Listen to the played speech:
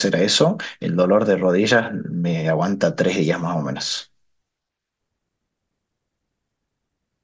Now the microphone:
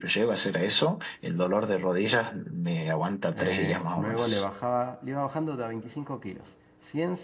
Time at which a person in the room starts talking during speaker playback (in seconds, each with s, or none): 3.3 s